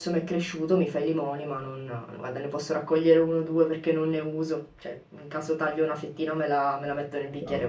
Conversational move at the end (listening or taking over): listening